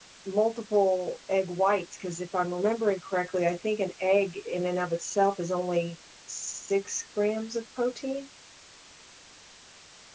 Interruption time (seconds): none

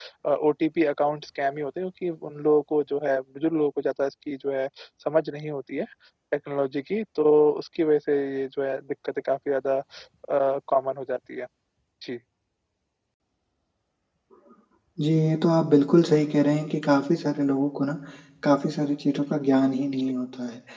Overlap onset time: none

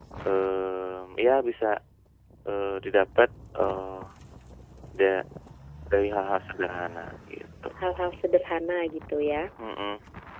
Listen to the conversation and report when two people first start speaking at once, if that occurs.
none

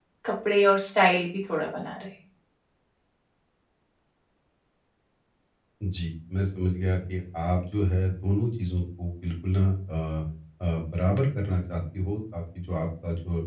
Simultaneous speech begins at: none

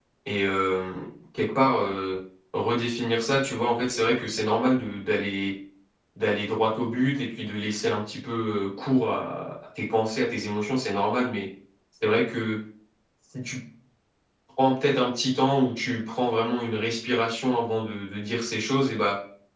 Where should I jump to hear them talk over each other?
none

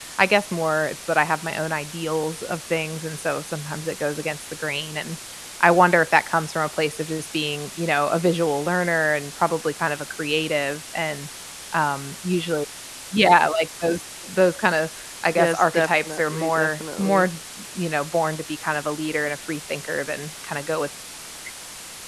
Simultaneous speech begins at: 15.3 s

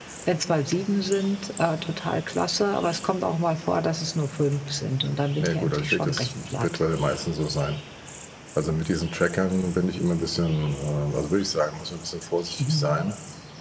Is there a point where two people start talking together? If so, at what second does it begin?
5.4 s

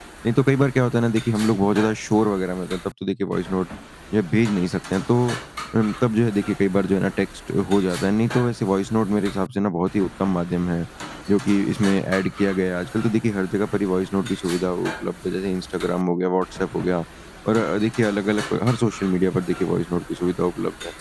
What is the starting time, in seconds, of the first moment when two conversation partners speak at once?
none

